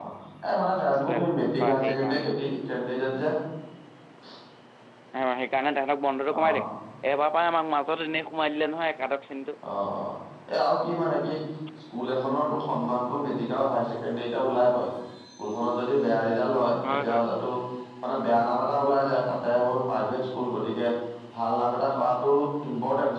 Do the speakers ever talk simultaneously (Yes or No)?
Yes